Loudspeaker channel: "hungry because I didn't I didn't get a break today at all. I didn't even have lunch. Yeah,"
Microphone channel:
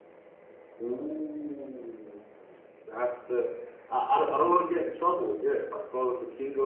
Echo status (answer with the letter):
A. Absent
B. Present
A